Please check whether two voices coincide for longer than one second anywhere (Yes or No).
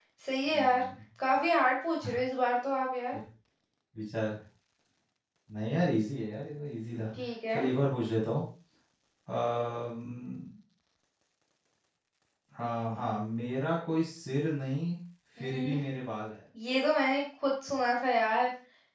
No